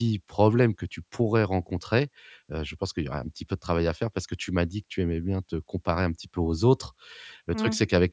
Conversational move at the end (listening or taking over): listening